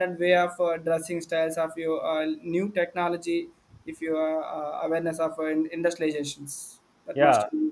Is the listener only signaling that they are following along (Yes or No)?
No